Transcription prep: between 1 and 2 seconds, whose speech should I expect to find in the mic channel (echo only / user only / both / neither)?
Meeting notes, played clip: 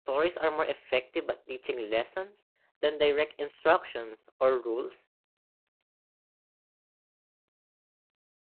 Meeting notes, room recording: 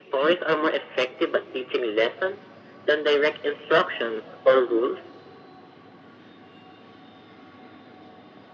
echo only